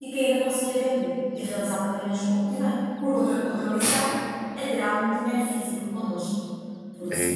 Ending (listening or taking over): taking over